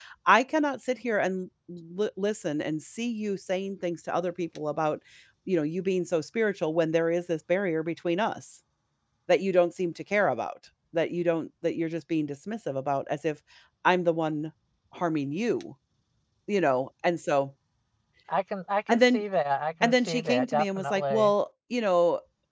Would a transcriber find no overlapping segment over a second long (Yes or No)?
No